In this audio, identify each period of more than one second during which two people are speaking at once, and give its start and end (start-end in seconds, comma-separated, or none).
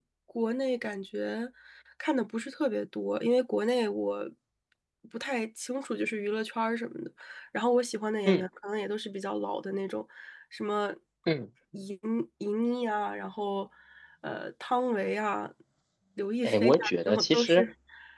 16.4-17.6